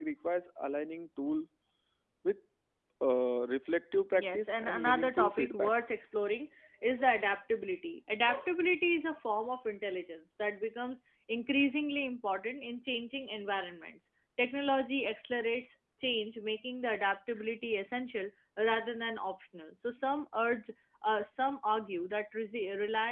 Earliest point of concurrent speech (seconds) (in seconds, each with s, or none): 4.1 s